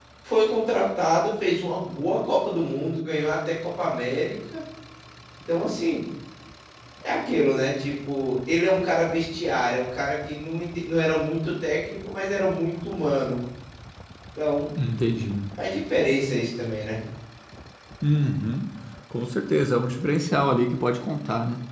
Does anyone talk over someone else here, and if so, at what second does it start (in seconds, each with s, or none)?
none